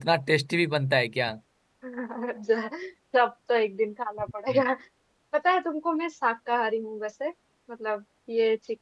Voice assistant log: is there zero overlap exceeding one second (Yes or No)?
Yes